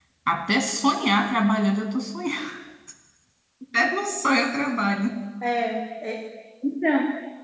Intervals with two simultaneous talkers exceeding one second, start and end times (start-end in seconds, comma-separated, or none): none